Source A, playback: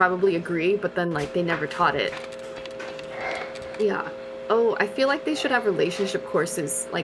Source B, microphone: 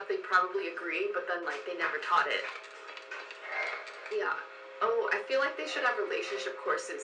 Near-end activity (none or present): none